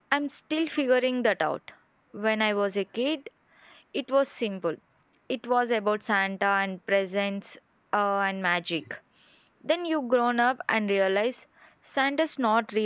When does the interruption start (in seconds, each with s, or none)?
none